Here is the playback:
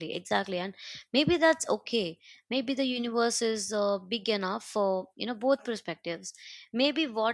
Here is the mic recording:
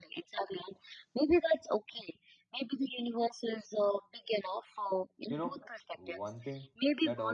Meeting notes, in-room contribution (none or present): present